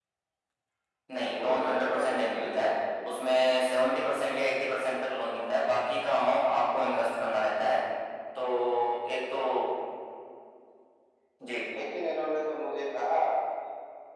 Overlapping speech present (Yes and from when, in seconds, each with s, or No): Yes, from 1.2 s